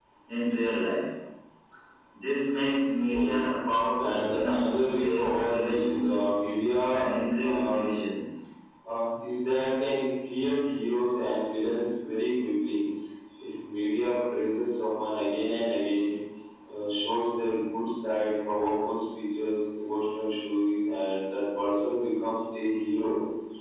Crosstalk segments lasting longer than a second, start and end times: 4.0-6.2

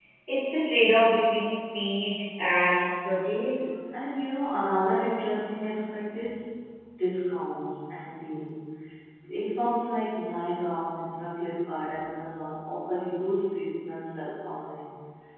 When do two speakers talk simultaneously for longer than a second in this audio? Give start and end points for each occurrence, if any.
none

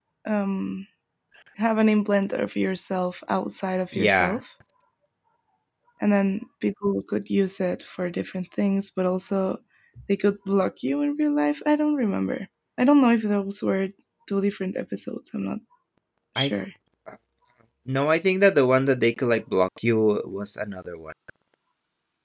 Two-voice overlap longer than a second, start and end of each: none

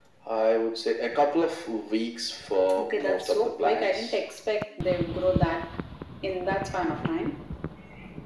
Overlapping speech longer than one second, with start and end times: 2.8-4.2

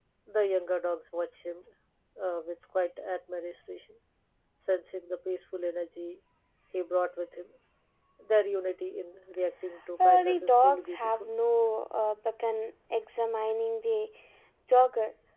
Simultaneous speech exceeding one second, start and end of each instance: 10.0-11.3

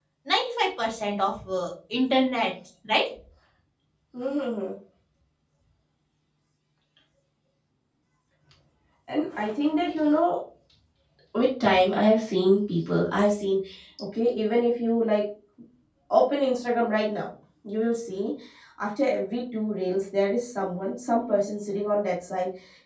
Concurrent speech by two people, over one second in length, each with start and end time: none

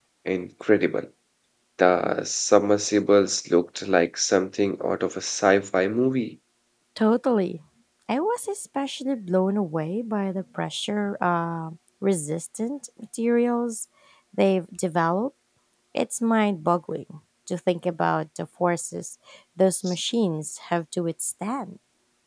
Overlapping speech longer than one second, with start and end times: none

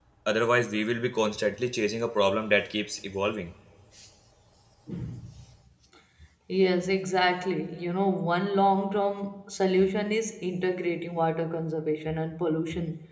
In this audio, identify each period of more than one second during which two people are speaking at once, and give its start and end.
none

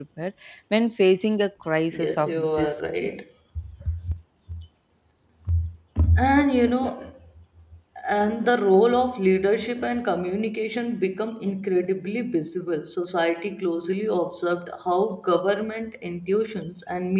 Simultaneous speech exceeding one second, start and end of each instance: 1.9-3.2

